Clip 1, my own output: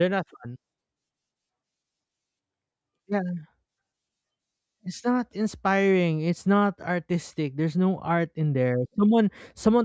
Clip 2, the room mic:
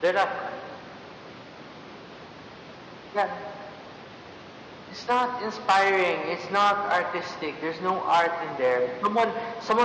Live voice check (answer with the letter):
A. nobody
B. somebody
A